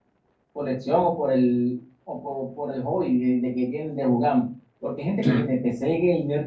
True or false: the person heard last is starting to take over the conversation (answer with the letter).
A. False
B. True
A